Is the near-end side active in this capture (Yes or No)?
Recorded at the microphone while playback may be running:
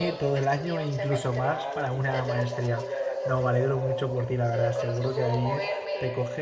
Yes